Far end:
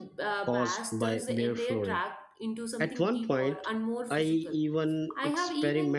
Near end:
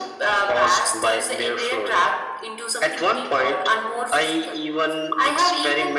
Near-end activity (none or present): none